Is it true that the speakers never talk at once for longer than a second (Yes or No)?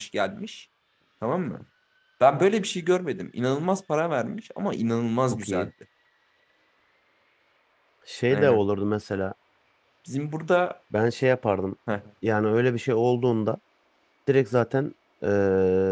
Yes